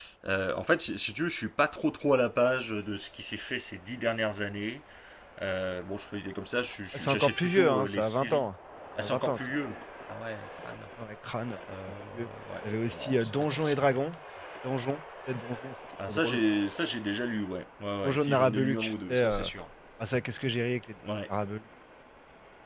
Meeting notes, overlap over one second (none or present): present